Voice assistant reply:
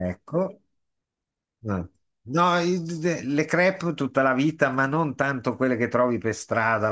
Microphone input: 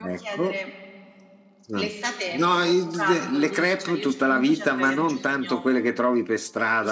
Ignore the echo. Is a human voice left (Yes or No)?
Yes